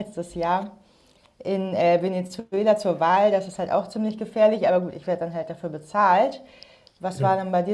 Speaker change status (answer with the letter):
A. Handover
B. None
B